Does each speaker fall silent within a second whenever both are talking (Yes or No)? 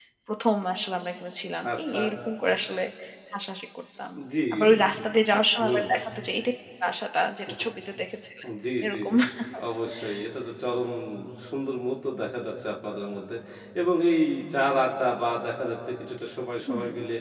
Yes